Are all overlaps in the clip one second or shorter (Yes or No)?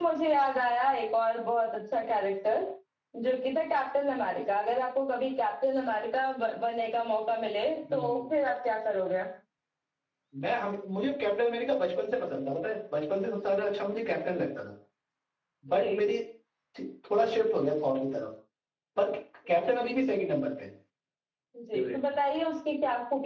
Yes